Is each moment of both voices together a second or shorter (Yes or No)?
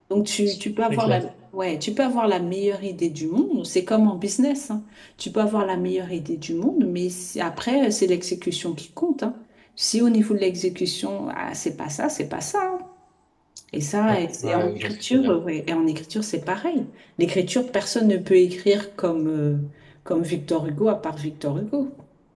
No